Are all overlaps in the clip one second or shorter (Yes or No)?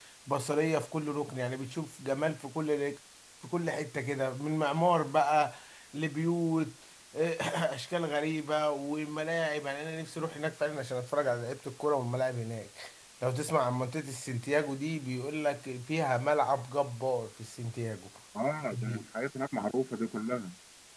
Yes